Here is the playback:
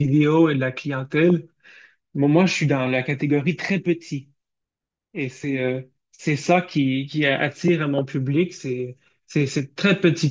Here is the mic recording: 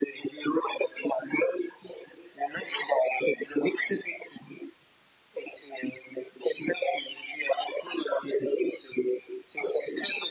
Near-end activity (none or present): none